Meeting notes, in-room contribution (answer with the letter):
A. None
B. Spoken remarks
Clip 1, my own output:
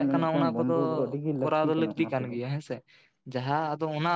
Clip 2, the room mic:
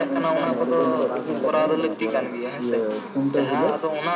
B